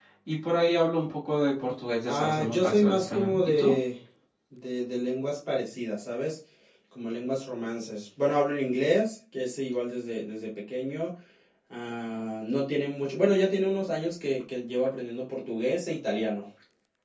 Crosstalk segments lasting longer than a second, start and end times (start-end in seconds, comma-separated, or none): 2.0-3.8